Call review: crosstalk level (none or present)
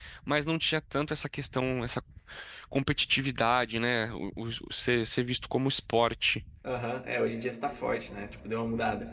none